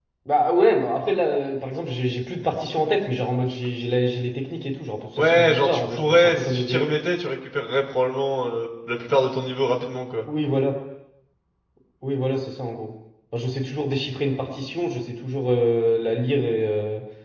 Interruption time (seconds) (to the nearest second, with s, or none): 5 s